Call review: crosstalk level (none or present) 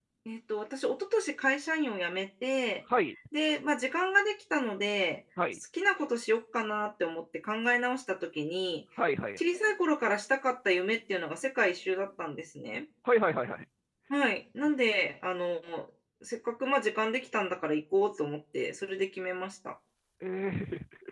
none